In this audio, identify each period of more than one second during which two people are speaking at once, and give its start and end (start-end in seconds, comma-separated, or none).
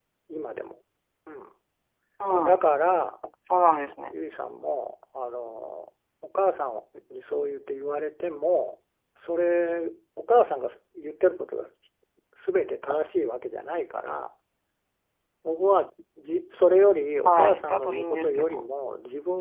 17.2-18.7